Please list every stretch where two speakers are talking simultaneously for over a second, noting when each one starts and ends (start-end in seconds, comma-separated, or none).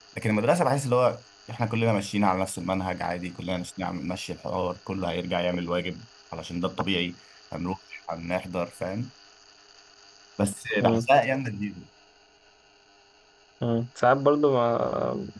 none